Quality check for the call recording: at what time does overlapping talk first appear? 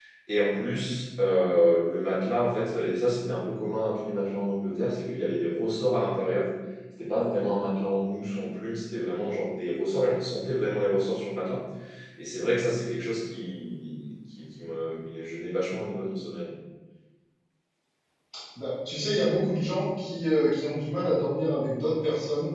none

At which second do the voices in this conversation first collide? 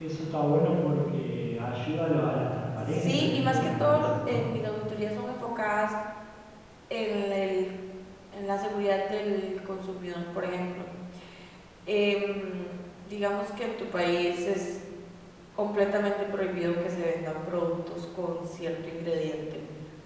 2.9 s

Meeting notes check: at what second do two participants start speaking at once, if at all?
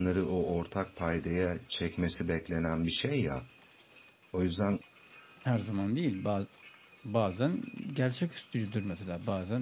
none

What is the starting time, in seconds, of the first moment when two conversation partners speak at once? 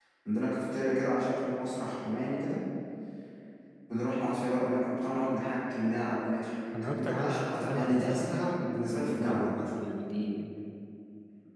6.7 s

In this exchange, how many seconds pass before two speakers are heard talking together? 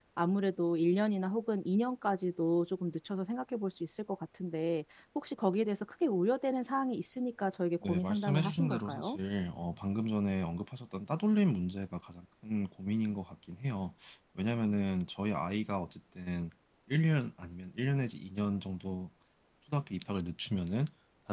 7.8 s

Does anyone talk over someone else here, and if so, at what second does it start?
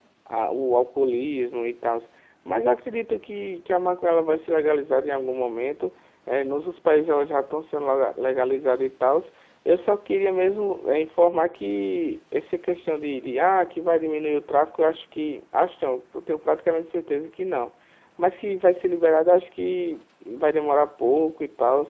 none

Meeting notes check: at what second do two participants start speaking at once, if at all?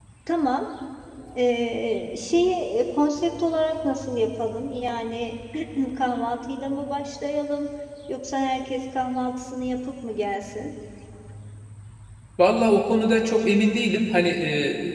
none

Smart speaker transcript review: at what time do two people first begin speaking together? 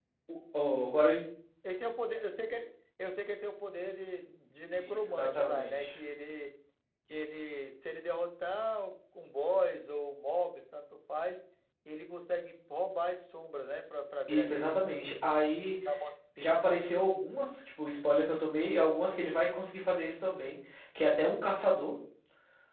4.7 s

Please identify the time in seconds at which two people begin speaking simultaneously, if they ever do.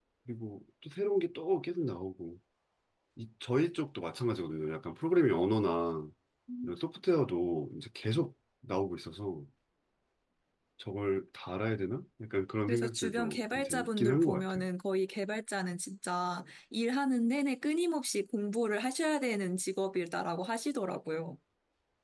12.7 s

